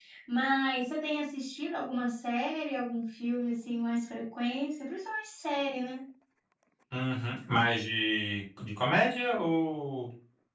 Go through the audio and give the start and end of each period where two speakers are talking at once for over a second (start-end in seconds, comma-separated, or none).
none